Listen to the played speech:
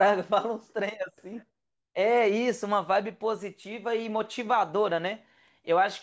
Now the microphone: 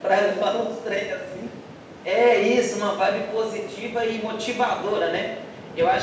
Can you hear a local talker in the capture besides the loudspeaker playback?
No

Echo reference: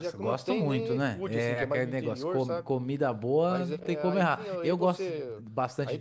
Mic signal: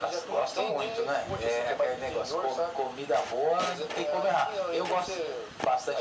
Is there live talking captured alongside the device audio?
No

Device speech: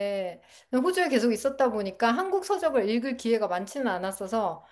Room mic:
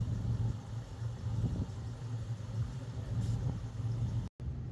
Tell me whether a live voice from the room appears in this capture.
No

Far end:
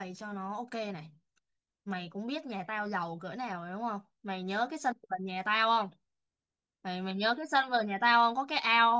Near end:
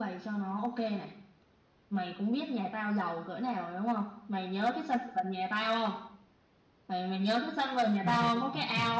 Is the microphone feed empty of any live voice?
No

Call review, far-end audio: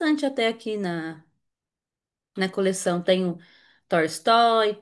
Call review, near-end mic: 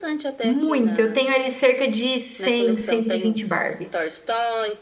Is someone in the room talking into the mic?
Yes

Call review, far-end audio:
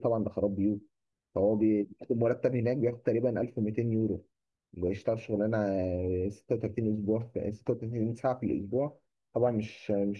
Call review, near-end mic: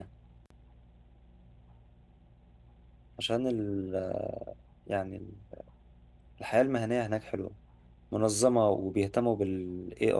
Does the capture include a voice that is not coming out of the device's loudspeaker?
Yes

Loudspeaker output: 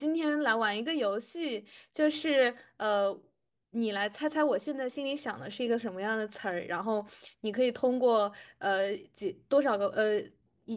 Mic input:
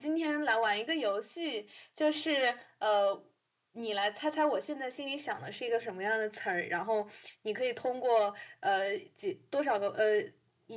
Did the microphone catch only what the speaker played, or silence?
Yes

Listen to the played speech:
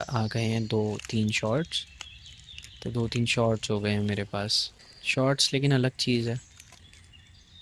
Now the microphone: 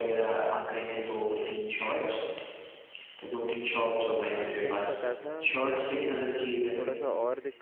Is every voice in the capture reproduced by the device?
No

